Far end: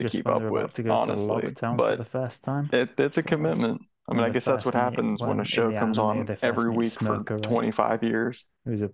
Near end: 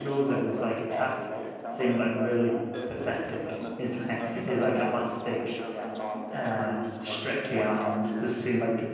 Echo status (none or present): present